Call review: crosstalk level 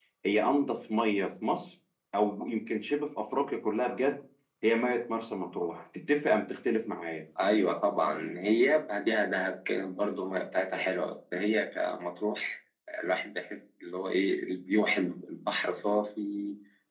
none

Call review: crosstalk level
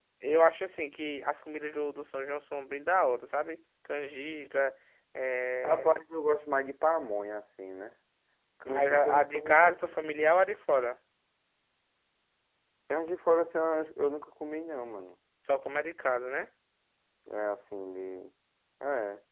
present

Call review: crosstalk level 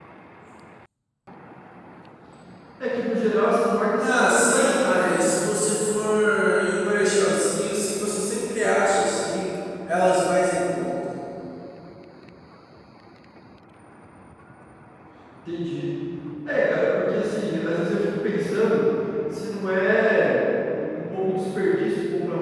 present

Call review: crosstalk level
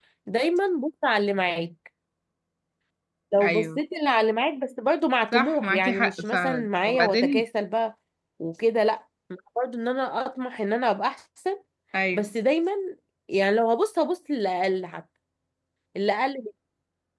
present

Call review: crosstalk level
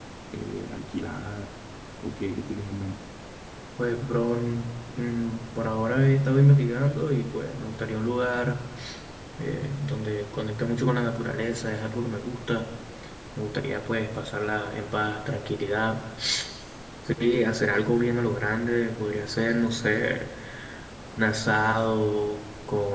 none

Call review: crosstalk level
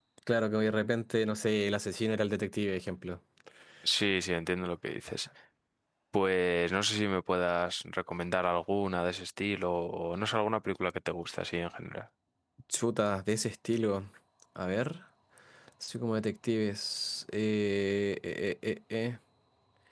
none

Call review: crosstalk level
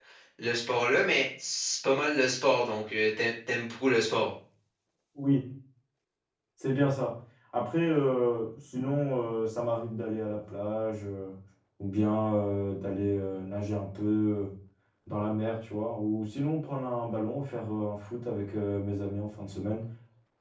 none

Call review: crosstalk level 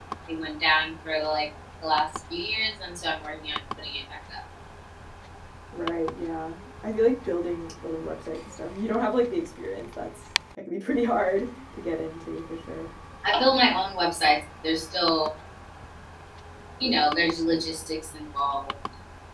none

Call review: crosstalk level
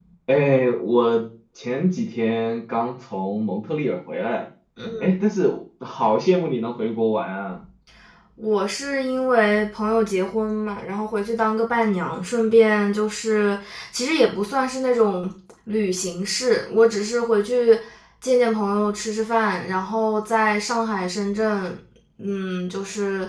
none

